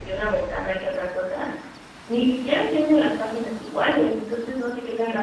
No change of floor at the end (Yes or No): Yes